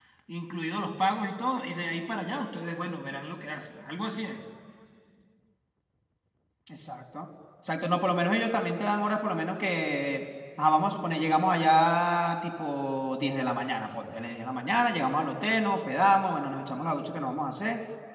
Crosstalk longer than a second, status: none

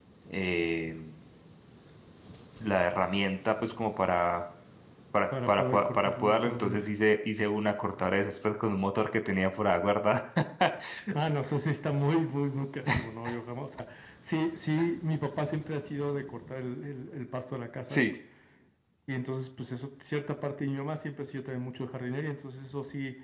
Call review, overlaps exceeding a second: present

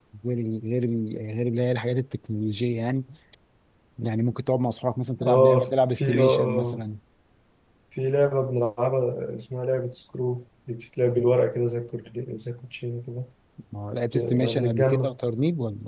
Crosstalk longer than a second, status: present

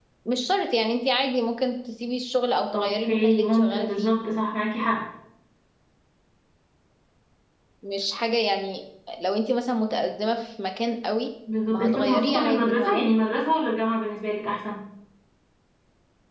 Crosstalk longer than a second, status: present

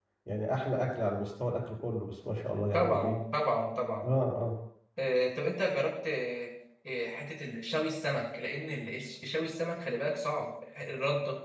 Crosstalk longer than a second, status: none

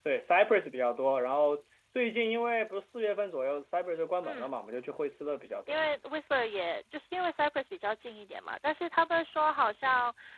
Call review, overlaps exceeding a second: none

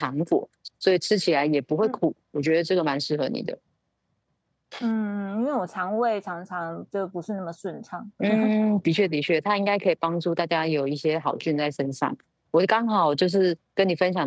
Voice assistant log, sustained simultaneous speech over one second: none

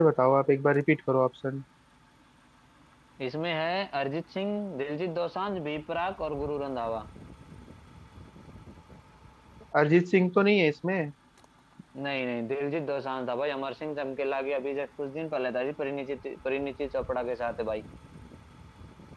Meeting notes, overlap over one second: none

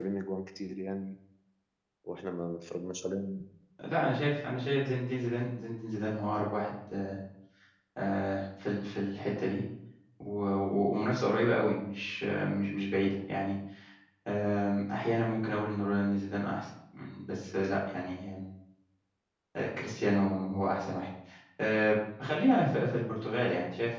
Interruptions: none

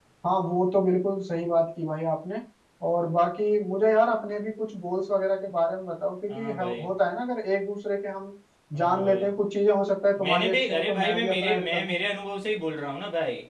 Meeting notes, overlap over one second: present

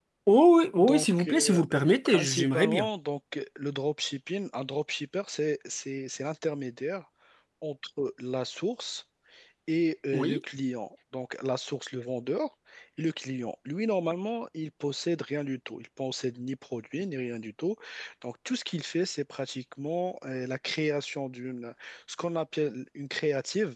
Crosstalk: present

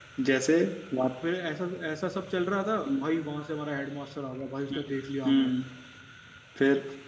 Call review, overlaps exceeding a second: none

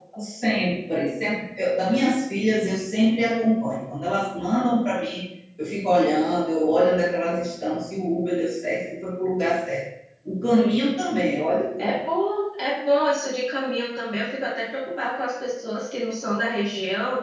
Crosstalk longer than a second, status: none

